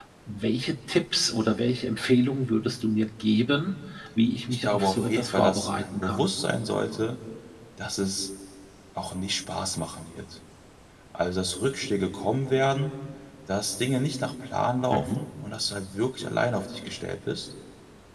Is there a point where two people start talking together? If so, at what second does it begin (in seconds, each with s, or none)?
4.5 s